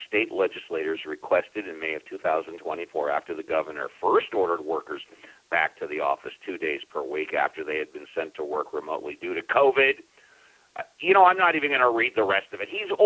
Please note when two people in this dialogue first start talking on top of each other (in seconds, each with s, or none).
none